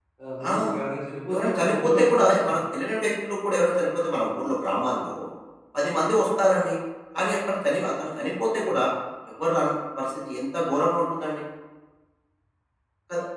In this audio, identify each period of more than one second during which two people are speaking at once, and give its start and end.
1.3-2.6

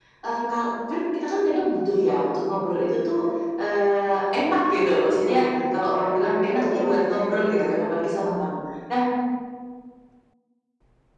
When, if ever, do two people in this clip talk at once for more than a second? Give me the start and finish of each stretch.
5.7-7.6

